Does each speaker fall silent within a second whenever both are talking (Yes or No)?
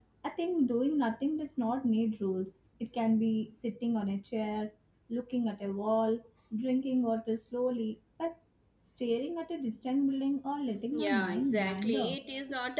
No